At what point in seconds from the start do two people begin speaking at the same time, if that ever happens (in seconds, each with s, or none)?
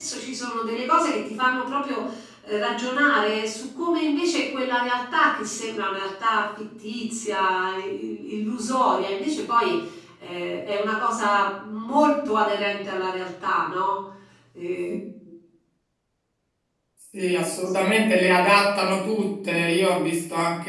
none